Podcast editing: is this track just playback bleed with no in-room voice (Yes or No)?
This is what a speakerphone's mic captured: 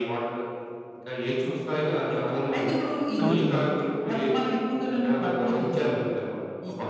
No